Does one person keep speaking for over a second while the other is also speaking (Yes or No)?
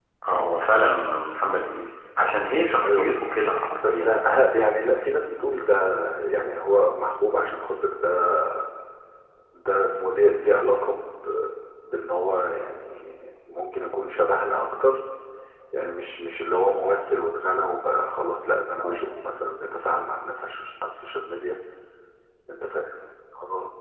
No